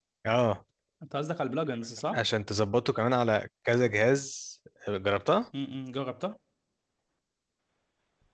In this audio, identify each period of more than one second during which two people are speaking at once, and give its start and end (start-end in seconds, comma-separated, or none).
none